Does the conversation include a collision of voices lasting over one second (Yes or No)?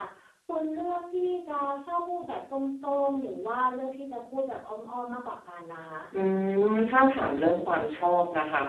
No